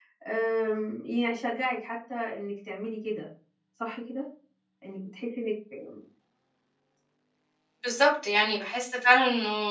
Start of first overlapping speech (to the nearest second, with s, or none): none